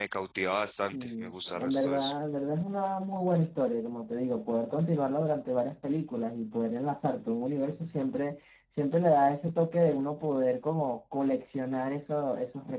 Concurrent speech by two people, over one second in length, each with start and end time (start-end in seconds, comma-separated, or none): 0.9-2.1